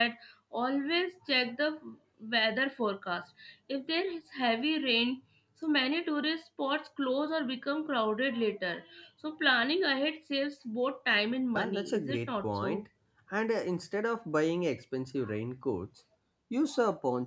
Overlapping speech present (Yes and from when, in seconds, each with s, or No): Yes, from 11.6 s